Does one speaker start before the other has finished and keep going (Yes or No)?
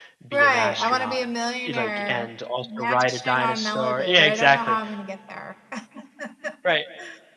Yes